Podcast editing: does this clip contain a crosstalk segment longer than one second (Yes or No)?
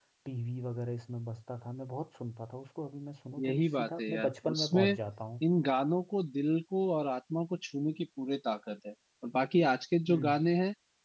Yes